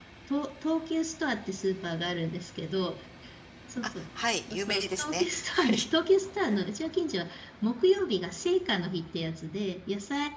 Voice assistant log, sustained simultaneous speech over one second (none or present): present